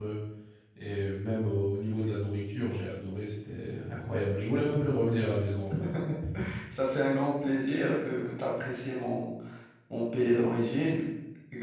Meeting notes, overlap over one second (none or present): none